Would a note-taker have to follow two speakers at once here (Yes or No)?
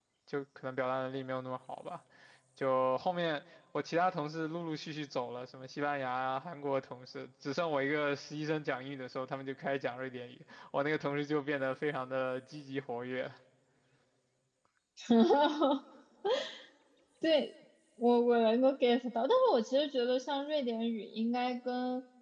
No